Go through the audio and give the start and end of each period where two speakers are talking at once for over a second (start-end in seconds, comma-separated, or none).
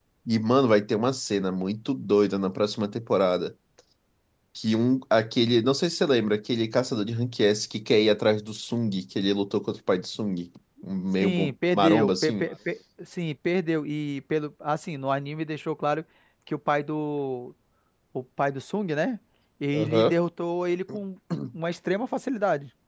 11.2-12.5